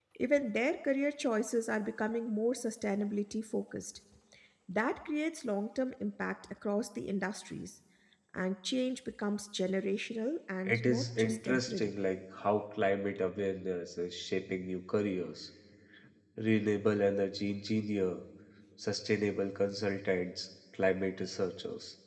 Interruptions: present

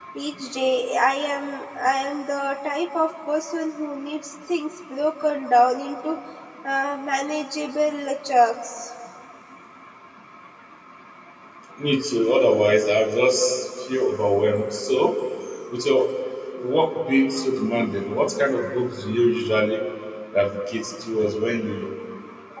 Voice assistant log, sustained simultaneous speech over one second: none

